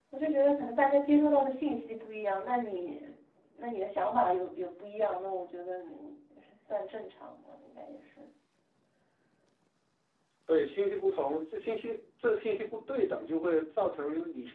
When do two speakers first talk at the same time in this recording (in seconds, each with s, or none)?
none